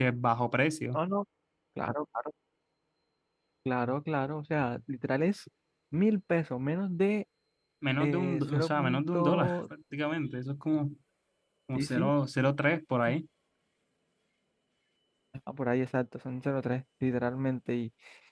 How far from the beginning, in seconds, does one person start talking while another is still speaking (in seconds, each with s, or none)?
8.0 s